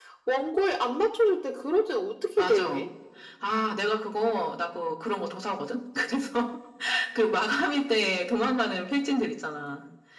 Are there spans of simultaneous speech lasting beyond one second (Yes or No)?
No